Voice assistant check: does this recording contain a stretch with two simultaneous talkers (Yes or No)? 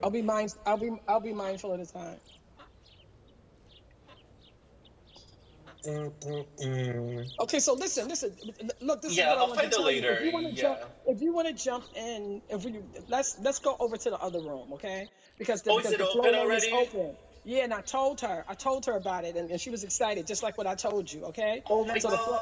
Yes